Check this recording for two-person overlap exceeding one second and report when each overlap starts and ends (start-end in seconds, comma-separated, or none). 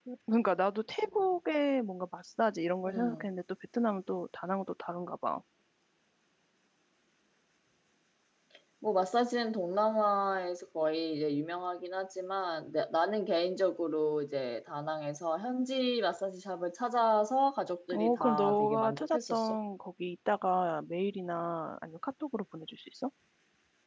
17.9-19.6